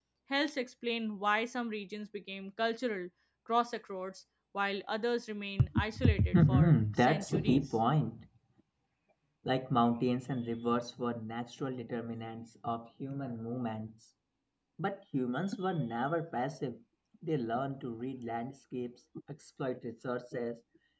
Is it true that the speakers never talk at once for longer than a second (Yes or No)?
No